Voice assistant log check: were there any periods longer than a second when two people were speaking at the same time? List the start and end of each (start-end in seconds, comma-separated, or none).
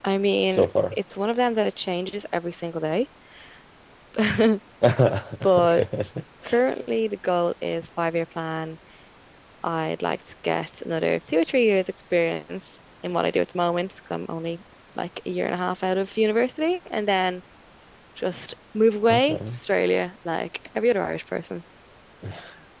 none